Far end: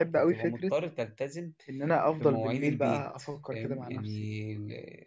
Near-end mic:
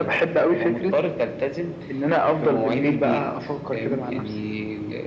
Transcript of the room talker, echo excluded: none

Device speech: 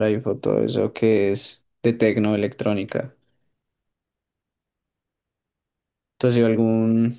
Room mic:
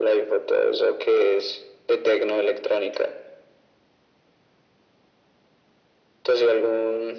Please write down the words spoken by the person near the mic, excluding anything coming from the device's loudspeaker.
none

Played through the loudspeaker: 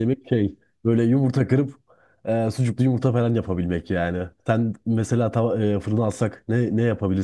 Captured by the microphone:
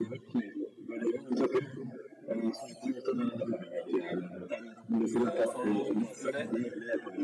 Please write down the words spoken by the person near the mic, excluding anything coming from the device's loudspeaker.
Ee, sonra onun üstüne

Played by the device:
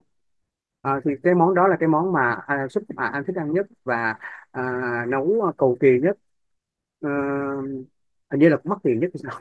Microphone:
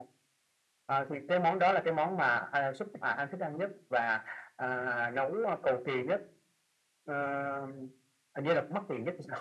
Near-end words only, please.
none

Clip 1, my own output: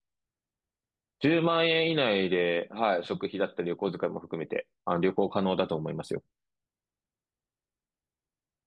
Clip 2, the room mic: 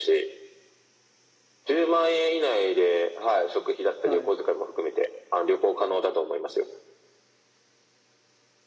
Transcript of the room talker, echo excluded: はい。

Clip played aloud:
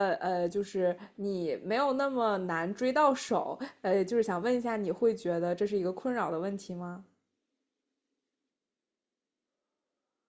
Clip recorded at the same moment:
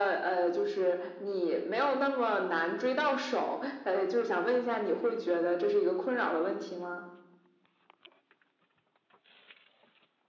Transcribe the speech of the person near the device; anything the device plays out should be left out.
none

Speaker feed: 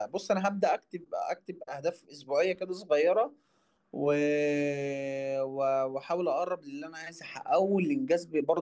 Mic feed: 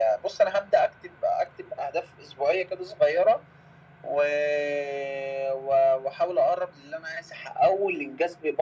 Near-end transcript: none

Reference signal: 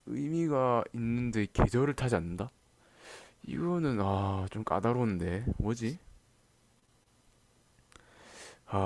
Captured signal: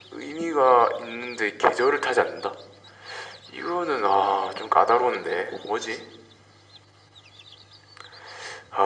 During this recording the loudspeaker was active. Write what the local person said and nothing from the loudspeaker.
none

